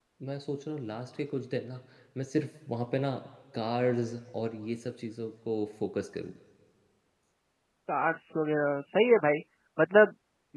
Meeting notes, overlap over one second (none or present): none